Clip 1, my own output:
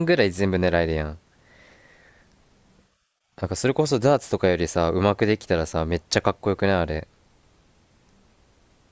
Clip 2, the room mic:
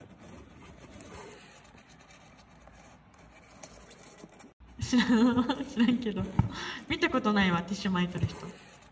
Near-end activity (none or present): present